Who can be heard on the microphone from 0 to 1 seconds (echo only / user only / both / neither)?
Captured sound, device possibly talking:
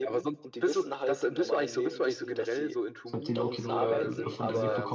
echo only